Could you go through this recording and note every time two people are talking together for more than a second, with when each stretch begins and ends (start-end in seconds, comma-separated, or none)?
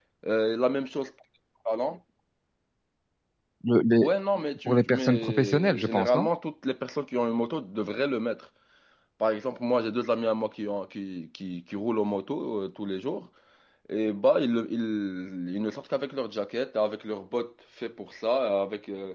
4.7-6.3